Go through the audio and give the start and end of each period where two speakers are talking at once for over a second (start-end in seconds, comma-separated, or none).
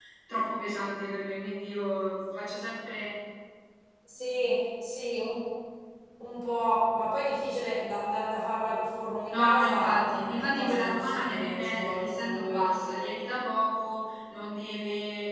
9.3-13.1